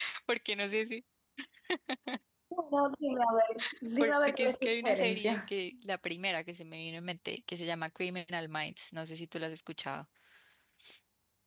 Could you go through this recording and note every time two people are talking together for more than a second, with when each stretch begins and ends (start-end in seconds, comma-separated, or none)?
4.0-5.5